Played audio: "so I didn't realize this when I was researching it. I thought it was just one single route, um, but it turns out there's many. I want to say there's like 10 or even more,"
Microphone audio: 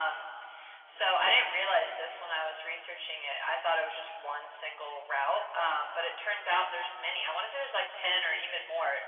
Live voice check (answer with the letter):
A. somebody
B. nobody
B